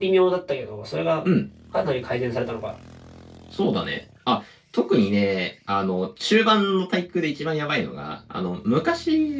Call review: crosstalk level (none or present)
none